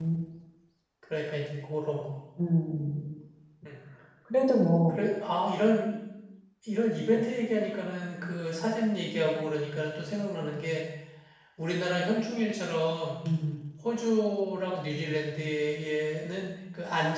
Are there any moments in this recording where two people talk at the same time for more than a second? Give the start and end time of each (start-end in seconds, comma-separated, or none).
none